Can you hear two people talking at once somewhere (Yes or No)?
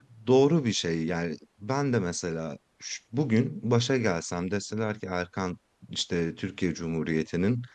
No